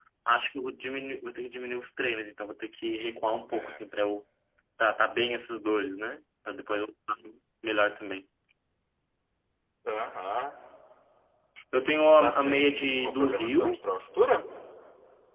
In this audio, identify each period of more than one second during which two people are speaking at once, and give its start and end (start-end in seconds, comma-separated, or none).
12.2-13.8